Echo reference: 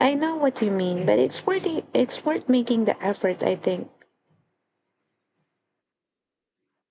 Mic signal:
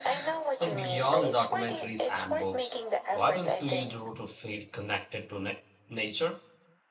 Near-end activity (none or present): present